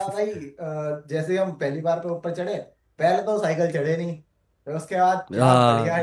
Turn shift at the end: No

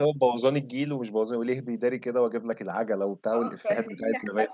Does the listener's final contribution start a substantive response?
Yes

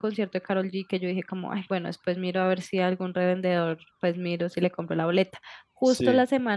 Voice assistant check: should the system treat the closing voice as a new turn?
No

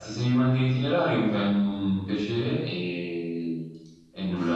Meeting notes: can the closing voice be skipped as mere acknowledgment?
No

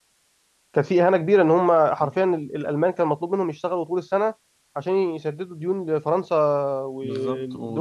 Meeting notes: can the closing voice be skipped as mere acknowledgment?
No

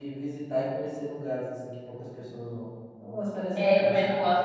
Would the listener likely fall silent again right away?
No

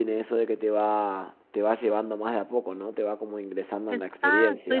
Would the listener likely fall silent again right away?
No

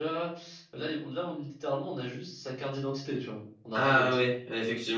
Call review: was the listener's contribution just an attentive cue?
No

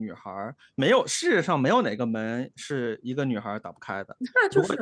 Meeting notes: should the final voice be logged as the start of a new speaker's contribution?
Yes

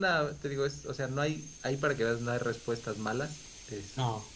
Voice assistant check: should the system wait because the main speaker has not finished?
Yes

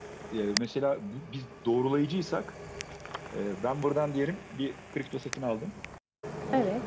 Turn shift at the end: No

